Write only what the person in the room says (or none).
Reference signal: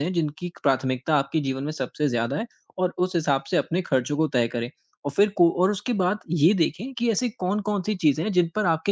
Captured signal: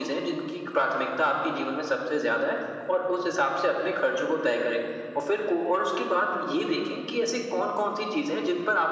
none